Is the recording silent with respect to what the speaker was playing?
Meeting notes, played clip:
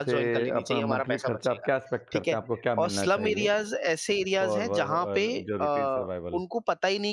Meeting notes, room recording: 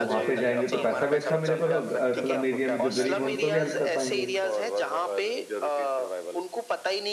No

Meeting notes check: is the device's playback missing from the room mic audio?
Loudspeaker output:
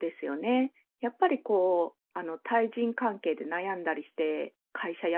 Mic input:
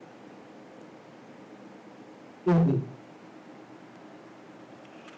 Yes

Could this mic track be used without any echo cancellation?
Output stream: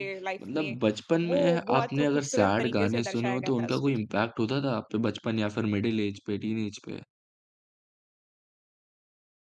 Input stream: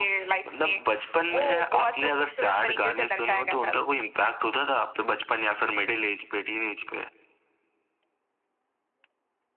No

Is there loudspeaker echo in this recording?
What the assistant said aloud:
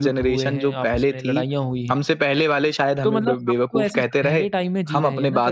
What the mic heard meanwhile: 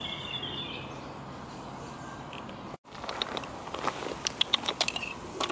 No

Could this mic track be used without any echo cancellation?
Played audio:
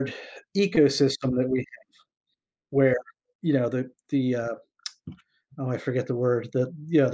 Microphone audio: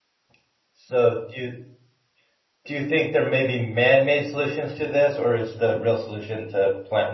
Yes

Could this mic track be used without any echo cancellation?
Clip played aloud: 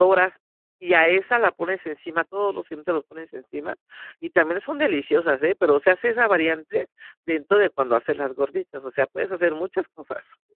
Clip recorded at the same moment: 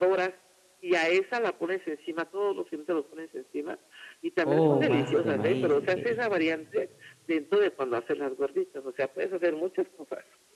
No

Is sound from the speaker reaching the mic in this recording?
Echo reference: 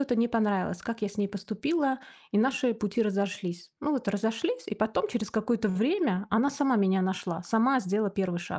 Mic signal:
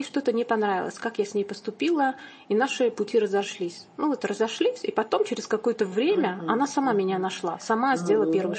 Yes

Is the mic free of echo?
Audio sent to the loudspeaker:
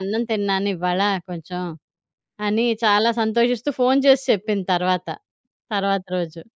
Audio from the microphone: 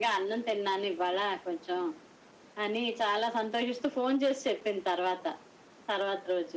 No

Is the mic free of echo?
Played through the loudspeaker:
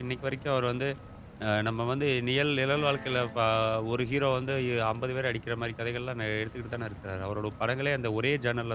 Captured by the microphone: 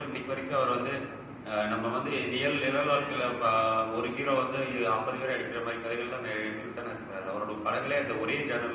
No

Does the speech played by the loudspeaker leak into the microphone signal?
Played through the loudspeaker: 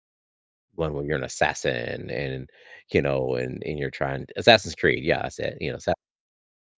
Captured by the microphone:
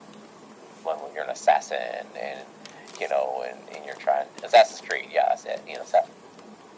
Yes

